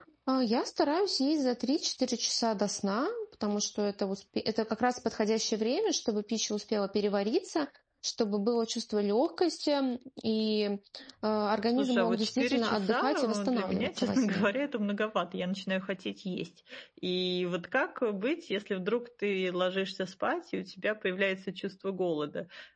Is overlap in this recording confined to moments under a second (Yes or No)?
No